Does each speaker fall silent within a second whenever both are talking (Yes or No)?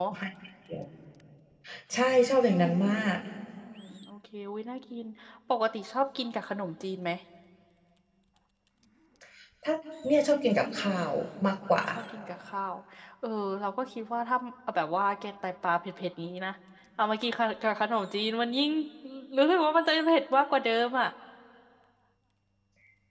Yes